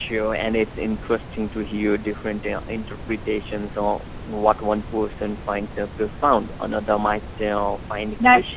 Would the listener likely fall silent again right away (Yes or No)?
No